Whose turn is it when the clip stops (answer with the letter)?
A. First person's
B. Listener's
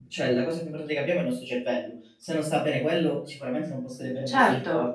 B